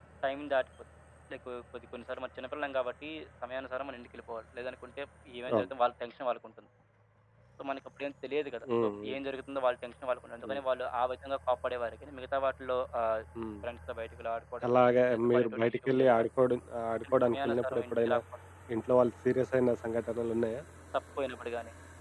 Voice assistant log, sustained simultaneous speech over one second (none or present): present